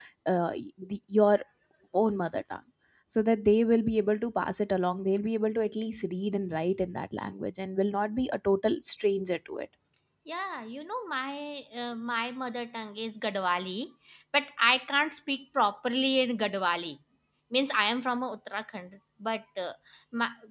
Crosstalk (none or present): none